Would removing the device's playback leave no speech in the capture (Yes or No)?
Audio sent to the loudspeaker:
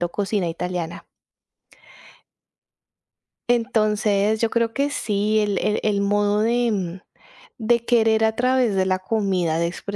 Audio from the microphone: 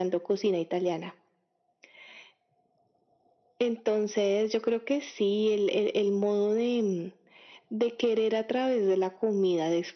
Yes